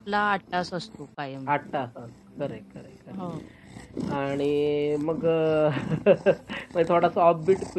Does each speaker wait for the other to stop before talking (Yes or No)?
Yes